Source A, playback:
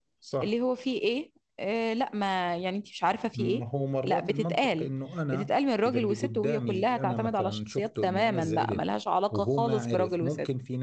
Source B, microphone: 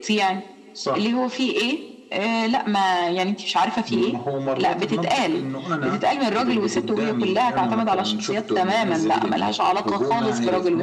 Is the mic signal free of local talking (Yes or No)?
Yes